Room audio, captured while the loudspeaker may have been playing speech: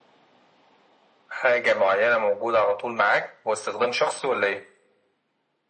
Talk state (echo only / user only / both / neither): echo only